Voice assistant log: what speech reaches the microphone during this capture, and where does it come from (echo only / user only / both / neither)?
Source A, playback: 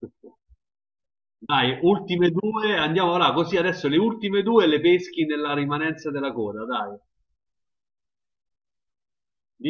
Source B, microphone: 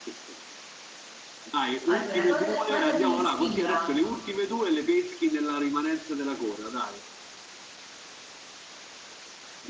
both